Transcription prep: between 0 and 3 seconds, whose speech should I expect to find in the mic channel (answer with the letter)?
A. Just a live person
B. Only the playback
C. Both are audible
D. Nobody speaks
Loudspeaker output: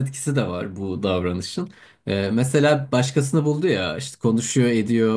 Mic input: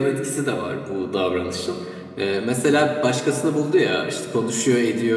B